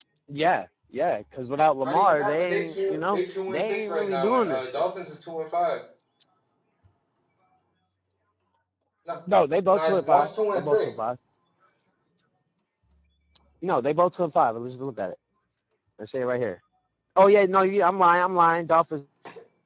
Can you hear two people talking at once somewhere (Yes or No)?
Yes